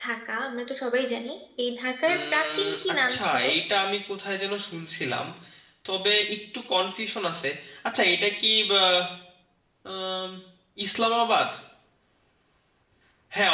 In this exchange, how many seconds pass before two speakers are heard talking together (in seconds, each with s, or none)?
2.1 s